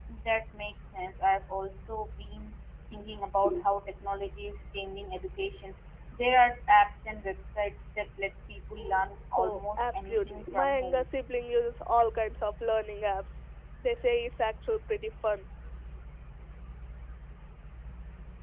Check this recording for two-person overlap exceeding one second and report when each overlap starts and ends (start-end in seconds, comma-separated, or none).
9.4-11.0